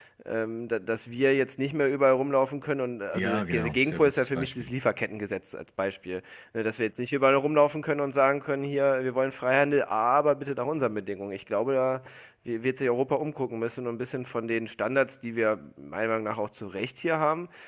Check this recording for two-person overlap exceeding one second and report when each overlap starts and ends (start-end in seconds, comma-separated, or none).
3.1-4.7